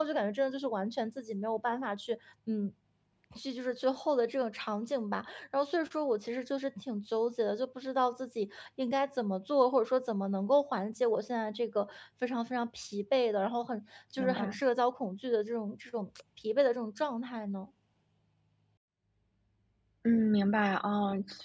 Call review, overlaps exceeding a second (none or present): none